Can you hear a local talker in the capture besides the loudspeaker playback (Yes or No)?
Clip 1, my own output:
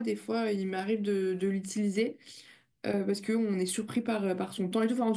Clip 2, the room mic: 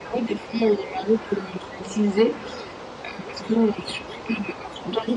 No